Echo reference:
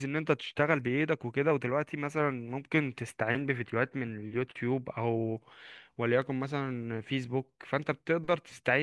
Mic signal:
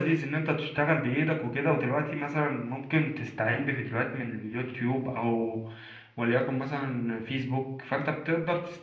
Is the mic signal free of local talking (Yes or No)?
Yes